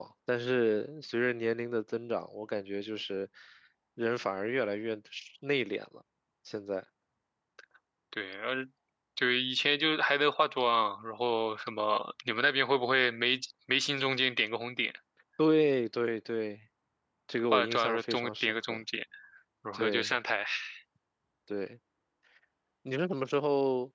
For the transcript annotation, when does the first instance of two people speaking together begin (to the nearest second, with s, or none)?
17 s